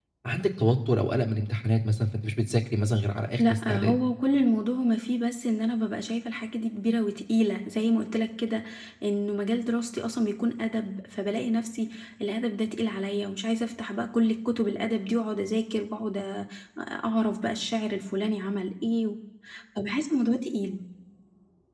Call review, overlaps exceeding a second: none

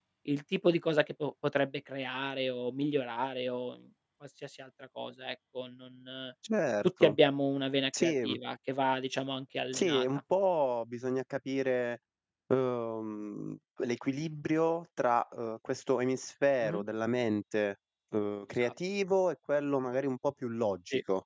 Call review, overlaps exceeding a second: none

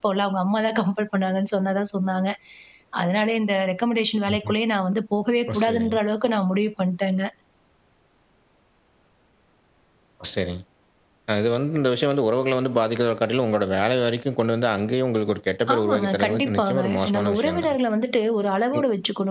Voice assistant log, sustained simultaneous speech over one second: present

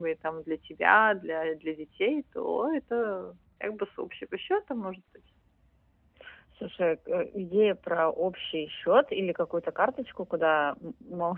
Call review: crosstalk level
none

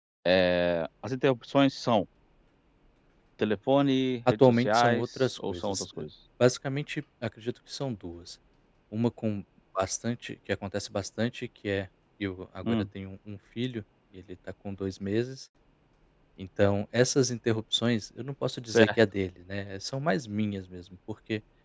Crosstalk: present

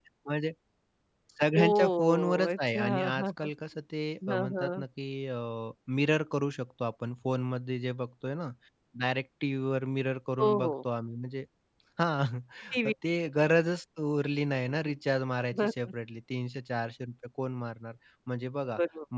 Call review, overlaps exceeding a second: present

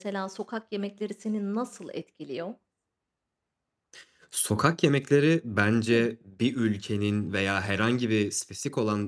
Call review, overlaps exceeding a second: none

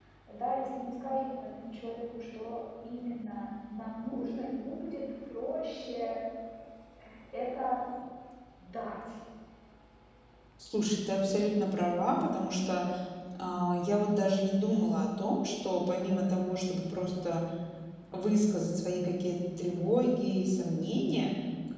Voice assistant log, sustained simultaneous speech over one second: none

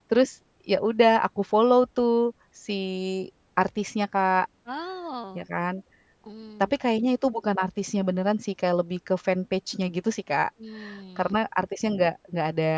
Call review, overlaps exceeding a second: none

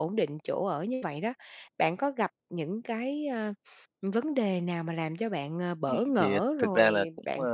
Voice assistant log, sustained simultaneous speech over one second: present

